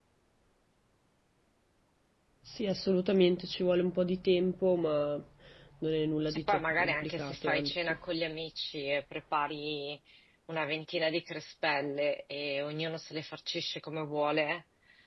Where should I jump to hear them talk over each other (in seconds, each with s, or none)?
6.3 s